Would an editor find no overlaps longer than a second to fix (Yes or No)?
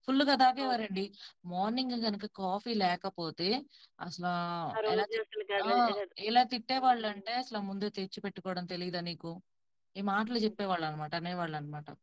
Yes